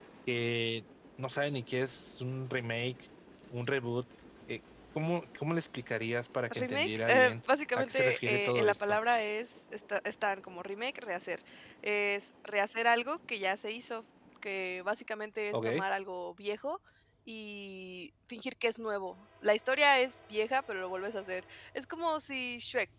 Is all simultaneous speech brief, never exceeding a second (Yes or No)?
No